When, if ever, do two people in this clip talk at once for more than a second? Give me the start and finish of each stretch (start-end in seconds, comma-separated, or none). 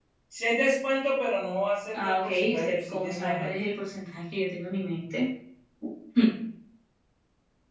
1.9-3.5